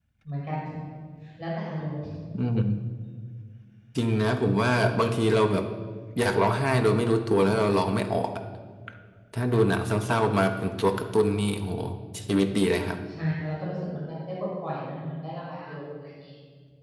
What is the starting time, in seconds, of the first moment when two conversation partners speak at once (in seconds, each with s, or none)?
none